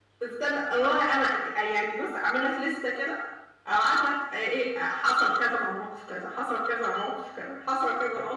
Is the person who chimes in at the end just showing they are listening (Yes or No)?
No